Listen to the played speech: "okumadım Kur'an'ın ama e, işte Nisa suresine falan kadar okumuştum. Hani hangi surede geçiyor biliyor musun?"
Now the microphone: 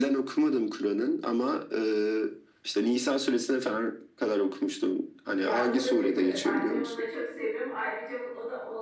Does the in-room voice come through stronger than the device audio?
No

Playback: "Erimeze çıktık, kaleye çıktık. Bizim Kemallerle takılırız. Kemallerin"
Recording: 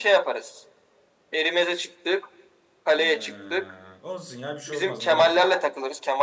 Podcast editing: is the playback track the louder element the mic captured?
Yes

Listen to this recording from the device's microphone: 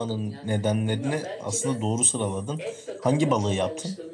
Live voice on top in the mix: Yes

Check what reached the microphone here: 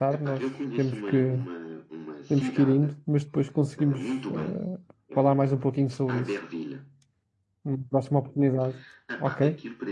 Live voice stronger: Yes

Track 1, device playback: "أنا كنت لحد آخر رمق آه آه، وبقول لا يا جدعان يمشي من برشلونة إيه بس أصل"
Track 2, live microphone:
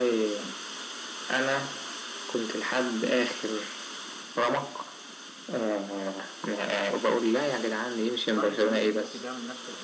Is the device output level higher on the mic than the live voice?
Yes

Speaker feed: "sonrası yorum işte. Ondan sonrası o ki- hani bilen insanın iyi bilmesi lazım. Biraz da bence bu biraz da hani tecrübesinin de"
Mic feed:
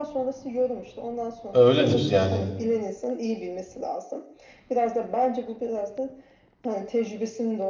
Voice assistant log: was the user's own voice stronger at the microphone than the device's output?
Yes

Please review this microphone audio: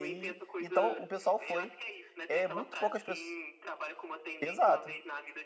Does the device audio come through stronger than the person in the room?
No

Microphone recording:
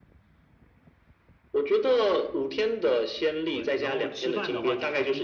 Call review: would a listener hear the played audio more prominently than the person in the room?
Yes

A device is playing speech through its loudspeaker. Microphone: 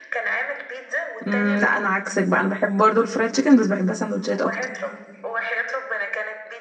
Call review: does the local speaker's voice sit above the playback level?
Yes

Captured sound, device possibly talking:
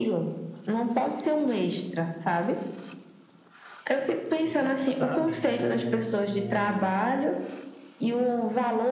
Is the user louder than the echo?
No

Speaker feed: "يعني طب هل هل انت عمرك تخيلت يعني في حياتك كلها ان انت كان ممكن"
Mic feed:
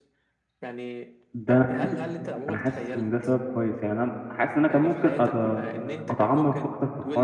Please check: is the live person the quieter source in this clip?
No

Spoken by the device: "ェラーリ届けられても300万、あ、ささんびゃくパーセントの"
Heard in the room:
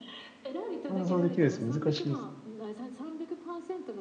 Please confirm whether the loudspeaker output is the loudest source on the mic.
No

